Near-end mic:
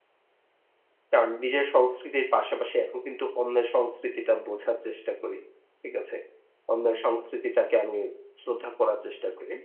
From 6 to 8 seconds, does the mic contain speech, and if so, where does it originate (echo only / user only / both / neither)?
user only